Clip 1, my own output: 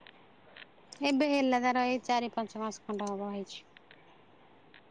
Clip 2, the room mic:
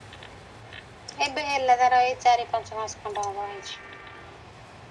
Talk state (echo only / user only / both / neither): echo only